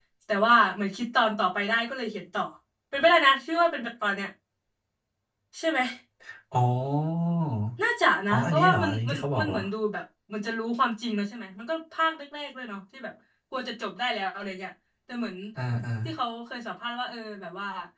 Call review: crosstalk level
present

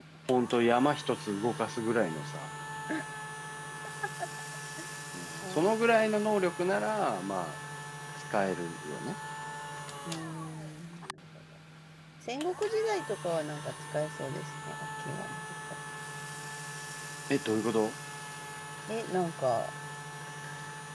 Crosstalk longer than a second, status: none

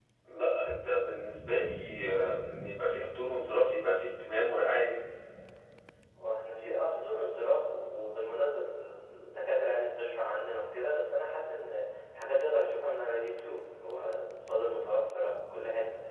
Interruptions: none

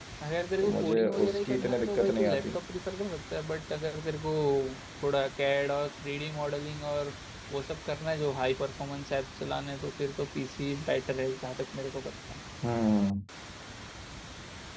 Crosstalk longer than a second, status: present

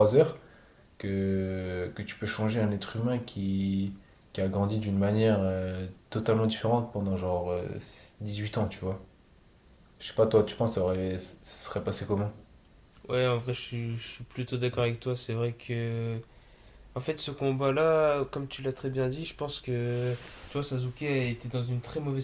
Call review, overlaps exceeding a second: none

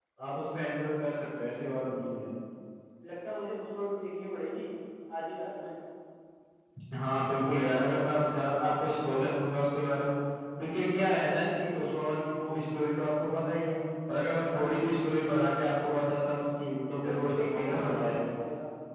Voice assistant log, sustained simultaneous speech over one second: present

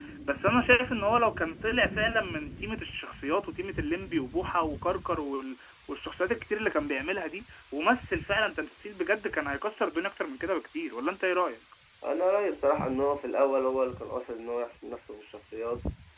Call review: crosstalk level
none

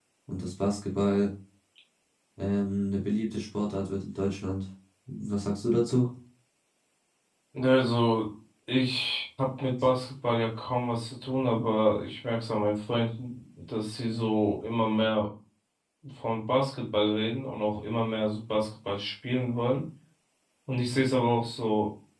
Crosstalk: none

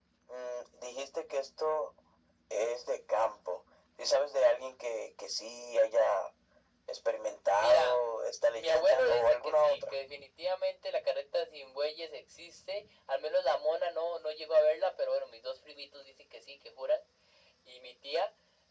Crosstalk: present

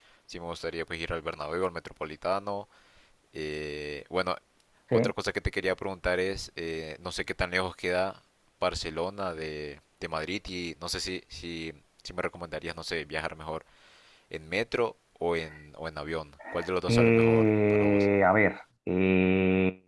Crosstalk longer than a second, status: present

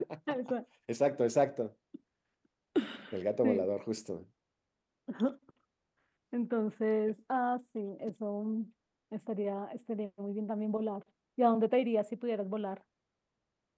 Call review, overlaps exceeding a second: none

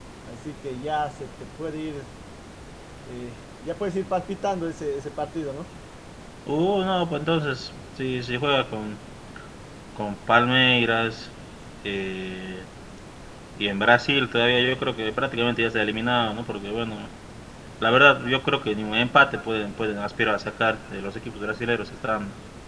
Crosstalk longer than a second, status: none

